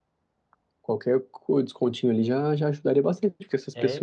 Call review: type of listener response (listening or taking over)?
listening